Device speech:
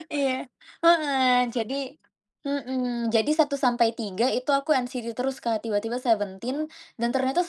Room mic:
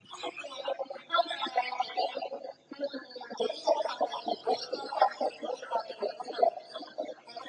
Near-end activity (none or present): none